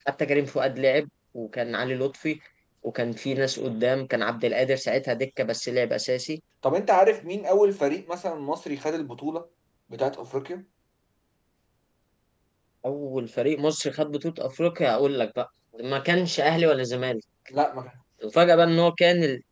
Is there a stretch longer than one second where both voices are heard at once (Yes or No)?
No